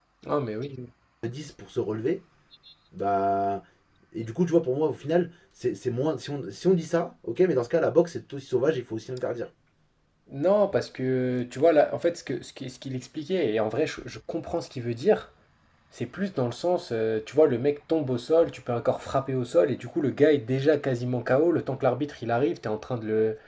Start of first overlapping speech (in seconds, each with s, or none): none